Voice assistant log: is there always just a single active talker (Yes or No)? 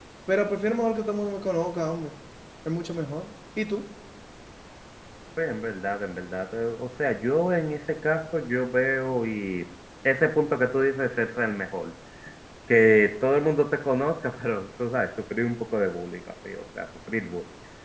Yes